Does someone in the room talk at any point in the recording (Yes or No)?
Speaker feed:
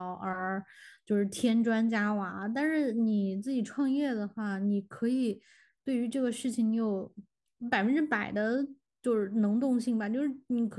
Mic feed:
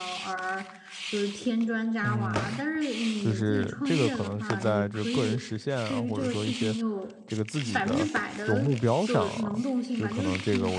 Yes